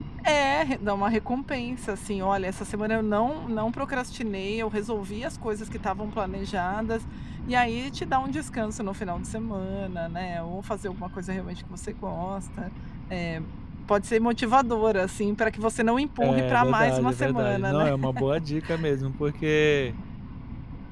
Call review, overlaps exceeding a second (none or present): present